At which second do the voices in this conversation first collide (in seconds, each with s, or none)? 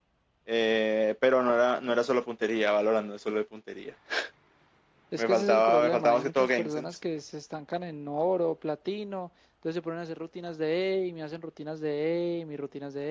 5.2 s